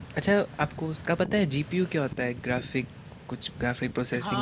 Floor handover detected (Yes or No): Yes